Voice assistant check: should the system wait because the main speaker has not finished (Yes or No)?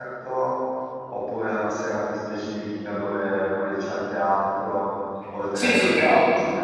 No